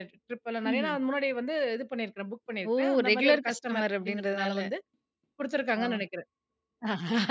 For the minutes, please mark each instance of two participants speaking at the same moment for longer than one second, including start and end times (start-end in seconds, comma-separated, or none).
2.8-4.6